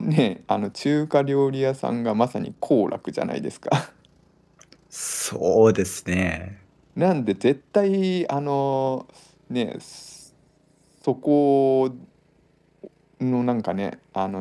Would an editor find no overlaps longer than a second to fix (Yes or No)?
Yes